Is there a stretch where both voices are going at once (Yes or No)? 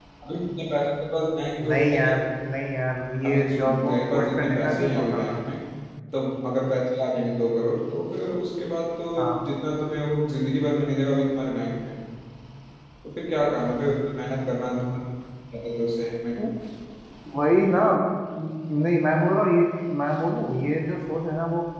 Yes